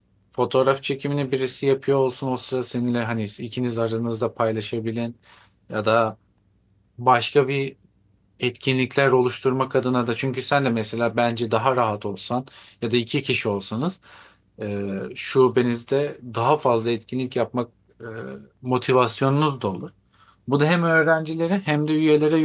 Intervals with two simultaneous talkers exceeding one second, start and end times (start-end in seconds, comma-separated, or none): none